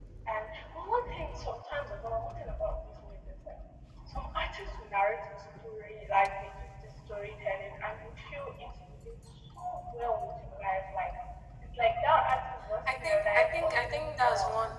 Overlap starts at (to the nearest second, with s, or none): 13 s